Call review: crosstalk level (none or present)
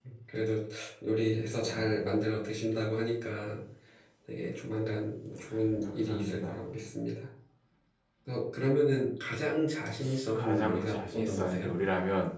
present